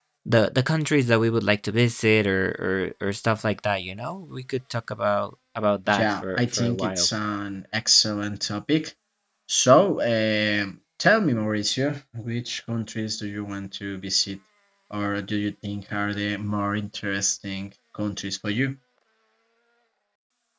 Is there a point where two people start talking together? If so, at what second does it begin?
6 s

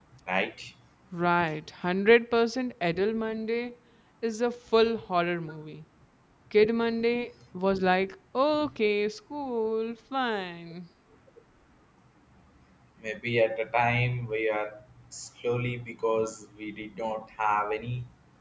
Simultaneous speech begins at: none

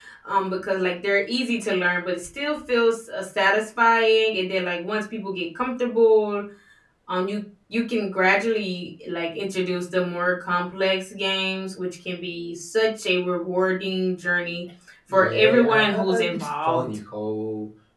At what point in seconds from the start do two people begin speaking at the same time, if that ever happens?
15 s

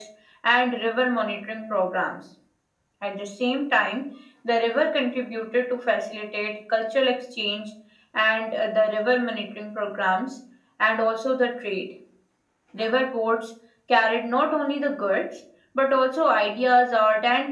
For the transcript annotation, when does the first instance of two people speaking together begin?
none

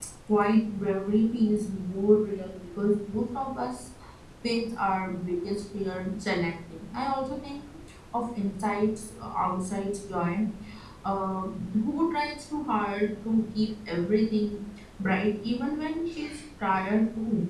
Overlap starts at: none

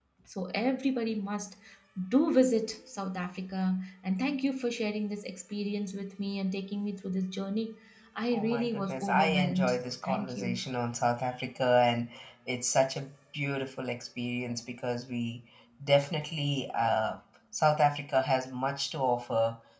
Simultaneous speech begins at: 8 s

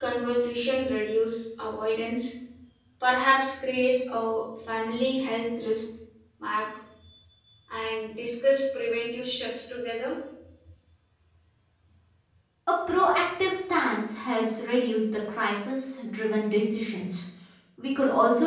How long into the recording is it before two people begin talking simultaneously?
none

